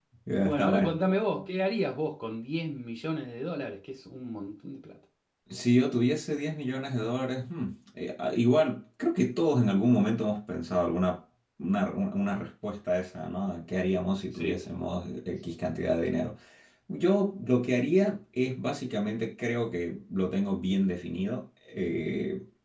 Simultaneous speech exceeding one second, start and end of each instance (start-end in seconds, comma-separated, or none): none